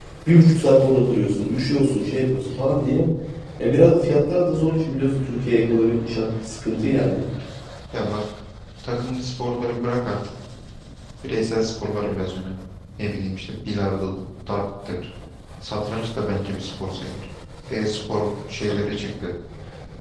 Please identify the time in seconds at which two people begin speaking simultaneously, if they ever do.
none

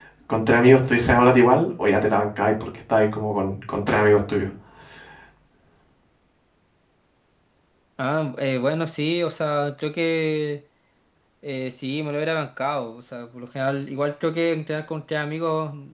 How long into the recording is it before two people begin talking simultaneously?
none

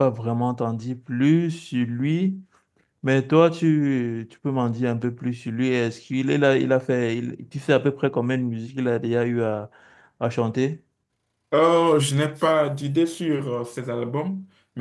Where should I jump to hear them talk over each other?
none

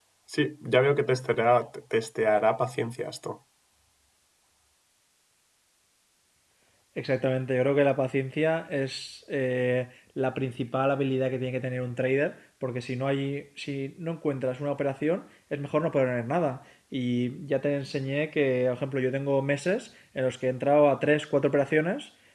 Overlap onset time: none

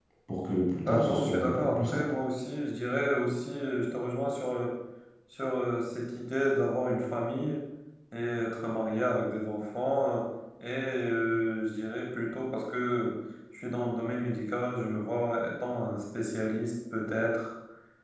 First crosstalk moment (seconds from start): 0.8 s

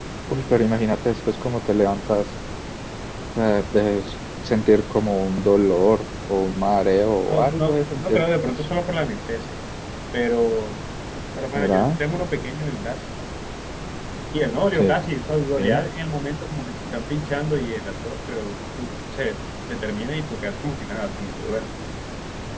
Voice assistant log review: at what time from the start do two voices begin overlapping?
7.3 s

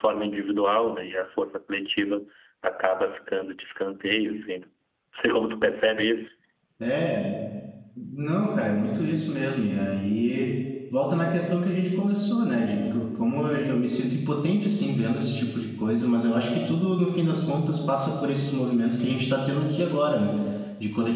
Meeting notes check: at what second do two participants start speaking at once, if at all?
none

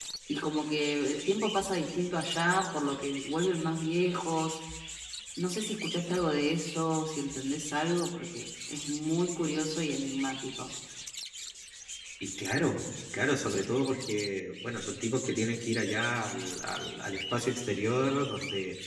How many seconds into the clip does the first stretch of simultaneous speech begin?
none

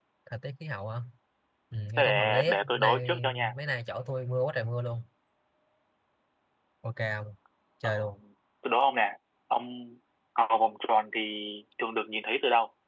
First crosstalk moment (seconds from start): 2.0 s

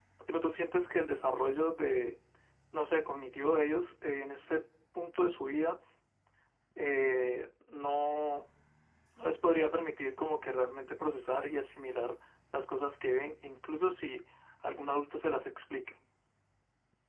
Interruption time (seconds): none

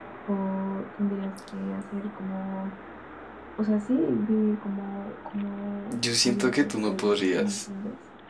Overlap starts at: 5.9 s

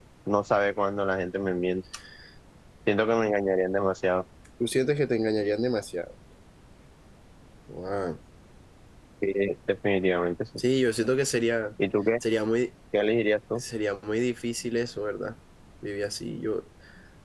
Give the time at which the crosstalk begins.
none

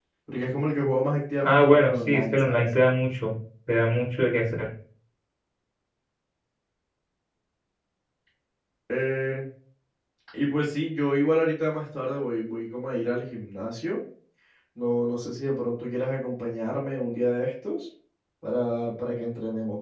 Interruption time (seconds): 1.4 s

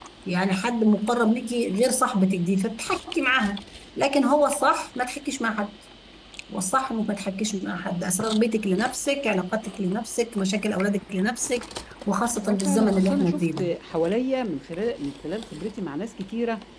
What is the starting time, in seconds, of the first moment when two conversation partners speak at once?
12.4 s

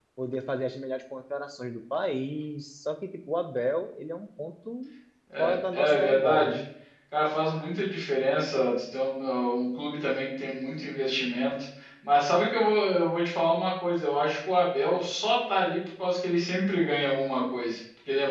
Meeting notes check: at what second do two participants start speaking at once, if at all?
5.4 s

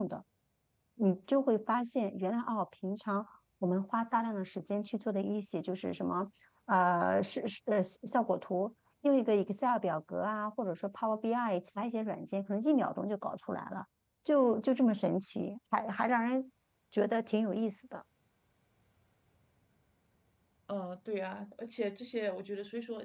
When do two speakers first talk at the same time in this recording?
none

